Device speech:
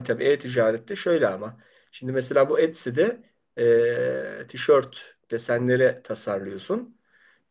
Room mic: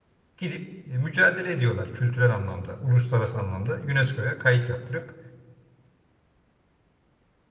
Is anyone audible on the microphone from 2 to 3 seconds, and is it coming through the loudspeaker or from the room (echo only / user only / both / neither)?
user only